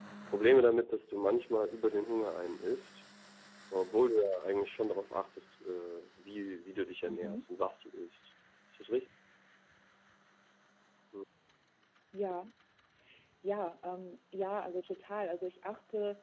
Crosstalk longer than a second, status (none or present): none